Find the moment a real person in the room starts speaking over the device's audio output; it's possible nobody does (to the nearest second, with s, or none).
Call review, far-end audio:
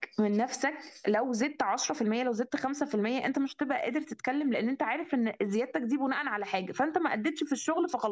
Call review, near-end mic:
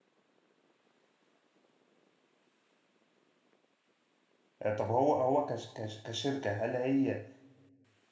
5 s